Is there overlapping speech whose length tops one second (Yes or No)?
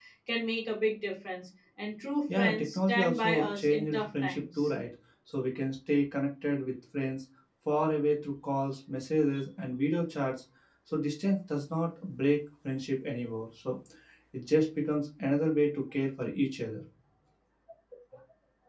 Yes